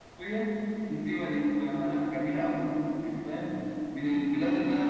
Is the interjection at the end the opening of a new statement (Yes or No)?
No